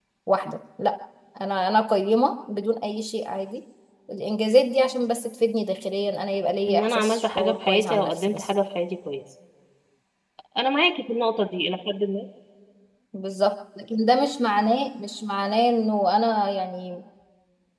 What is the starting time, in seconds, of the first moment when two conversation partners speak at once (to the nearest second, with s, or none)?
7 s